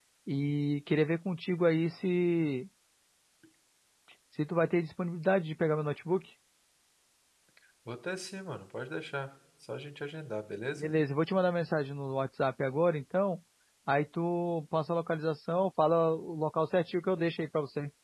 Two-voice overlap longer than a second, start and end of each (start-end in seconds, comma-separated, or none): none